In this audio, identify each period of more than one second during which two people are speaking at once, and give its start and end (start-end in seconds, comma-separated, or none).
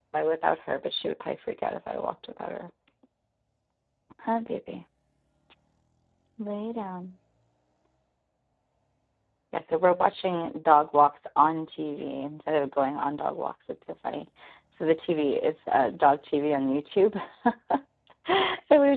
none